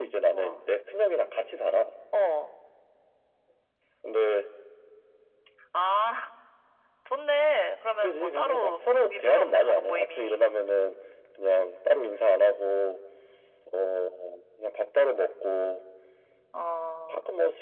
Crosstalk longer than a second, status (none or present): present